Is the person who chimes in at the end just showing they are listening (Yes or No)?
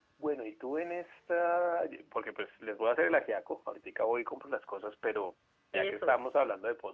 Yes